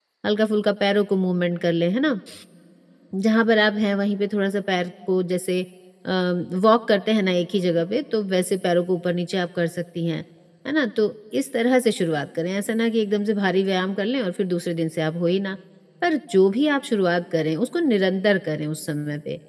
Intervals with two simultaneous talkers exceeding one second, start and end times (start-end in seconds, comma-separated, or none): none